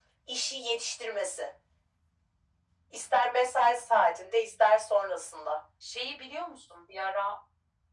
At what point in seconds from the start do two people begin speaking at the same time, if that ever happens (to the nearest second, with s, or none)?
none